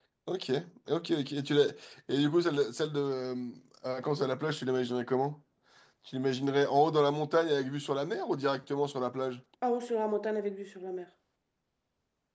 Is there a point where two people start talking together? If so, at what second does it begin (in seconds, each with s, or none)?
none